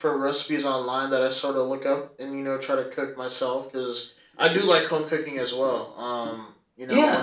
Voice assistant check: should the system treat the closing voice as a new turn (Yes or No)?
No